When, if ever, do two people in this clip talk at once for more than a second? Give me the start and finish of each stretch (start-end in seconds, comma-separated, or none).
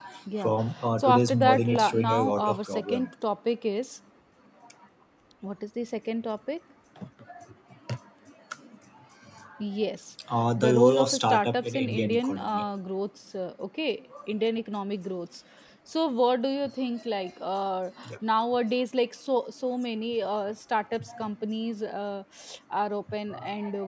1.0-3.1, 10.6-12.6